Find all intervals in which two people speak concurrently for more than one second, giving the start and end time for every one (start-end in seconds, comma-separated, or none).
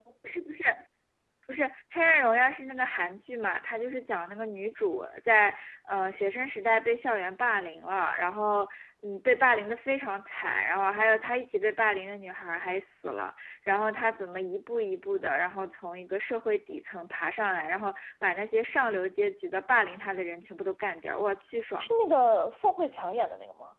none